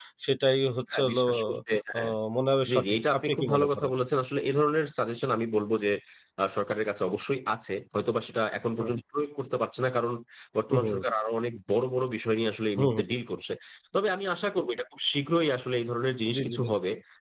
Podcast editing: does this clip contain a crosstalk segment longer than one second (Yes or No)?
Yes